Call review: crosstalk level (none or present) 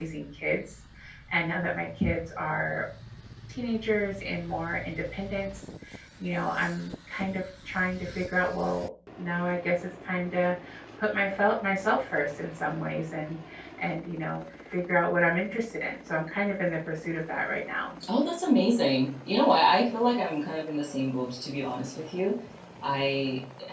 none